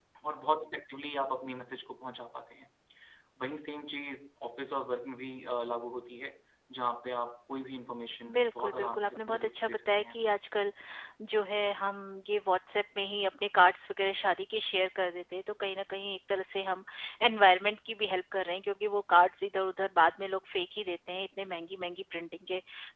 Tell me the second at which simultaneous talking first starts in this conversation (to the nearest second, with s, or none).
8 s